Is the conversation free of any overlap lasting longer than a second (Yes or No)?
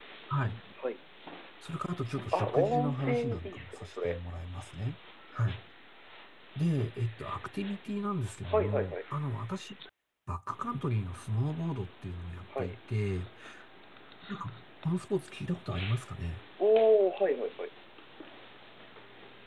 No